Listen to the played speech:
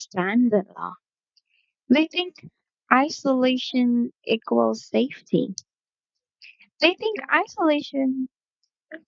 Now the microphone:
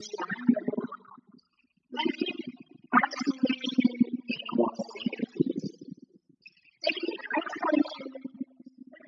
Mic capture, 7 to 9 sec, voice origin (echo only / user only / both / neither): echo only